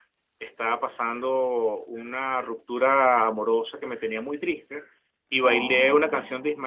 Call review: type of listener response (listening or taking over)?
listening